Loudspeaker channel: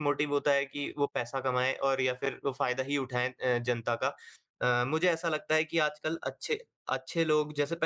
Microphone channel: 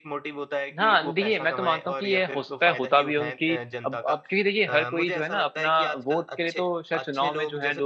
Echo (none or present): present